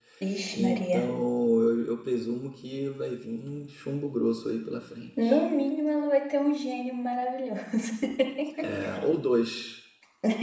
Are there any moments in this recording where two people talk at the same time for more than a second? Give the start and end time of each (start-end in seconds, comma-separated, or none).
none